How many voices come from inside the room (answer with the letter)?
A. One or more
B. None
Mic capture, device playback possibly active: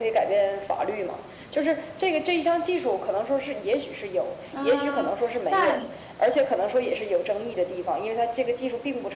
A